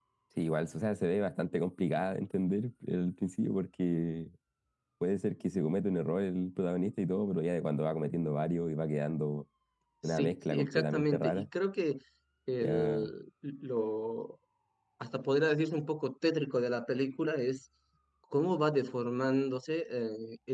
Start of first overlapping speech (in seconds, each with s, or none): 10.1 s